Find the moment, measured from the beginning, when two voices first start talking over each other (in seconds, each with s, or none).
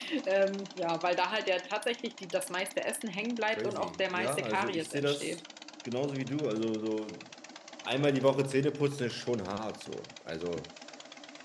3.5 s